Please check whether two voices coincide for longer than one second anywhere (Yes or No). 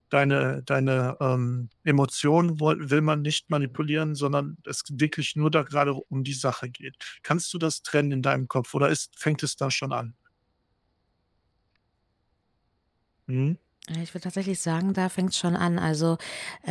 No